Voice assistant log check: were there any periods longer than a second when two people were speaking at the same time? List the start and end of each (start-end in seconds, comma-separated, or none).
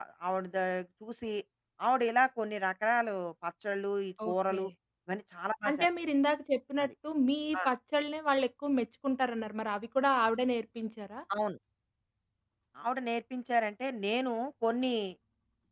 none